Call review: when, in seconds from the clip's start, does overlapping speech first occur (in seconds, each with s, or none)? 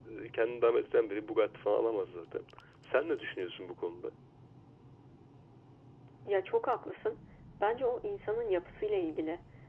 none